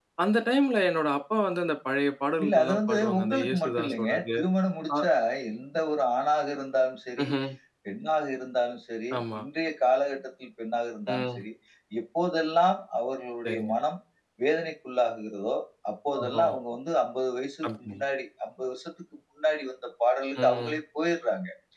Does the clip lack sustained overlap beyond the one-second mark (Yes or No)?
No